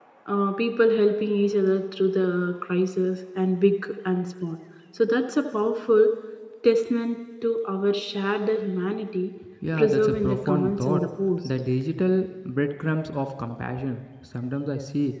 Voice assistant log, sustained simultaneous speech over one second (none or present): present